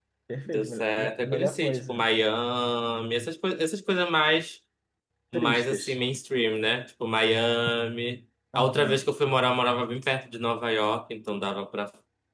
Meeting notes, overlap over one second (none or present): present